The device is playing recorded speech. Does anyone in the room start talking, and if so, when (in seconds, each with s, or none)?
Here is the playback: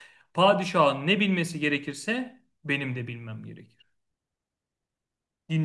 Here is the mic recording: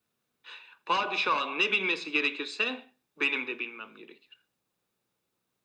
none